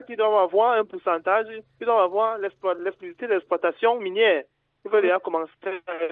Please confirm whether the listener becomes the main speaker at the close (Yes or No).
No